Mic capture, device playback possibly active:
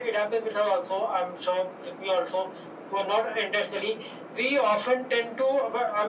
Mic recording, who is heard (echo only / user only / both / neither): echo only